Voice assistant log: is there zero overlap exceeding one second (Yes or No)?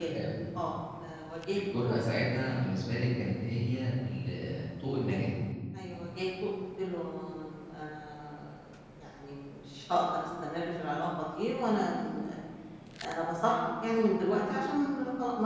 Yes